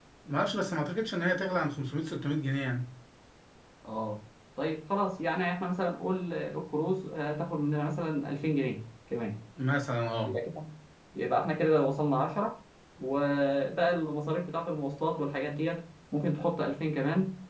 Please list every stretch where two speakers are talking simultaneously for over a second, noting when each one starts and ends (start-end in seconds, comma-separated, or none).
none